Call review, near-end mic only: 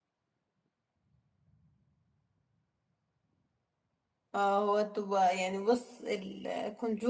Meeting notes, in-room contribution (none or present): present